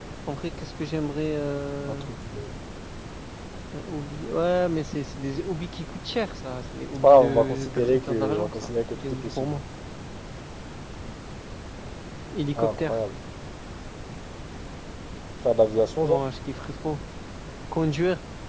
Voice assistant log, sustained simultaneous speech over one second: present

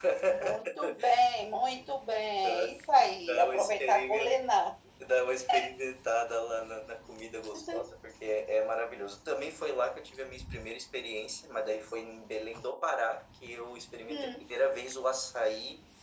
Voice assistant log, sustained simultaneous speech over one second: present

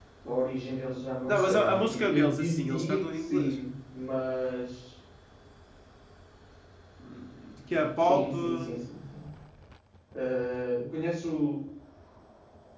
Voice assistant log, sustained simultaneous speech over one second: present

